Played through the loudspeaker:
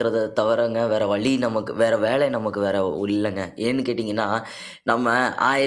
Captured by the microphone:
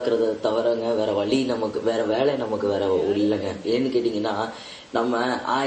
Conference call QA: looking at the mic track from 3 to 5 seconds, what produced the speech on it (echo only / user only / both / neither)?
both